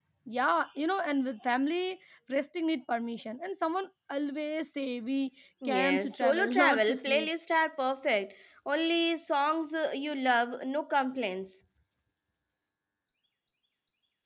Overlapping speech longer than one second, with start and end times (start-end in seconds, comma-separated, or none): 5.7-7.3